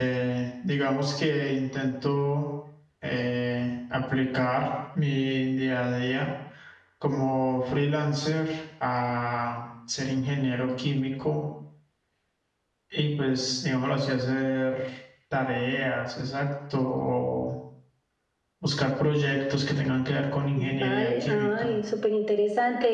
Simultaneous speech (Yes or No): Yes